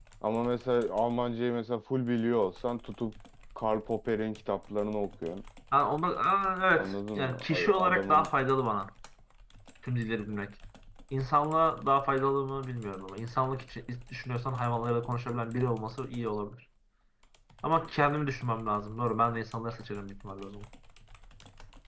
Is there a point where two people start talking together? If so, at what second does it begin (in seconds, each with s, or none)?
6.8 s